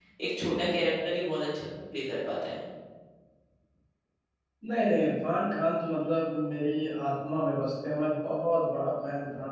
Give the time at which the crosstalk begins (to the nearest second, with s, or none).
none